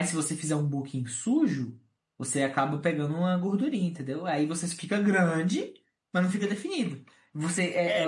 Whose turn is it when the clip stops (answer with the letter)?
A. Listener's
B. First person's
A